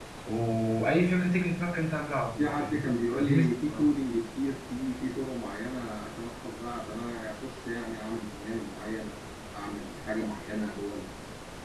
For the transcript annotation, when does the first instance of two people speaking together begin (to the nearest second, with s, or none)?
2 s